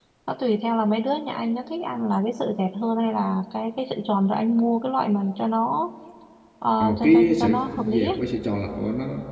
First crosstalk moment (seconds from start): 6.8 s

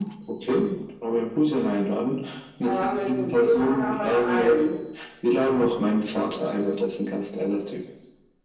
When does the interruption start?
2.6 s

